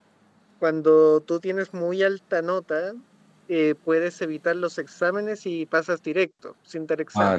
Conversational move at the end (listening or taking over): taking over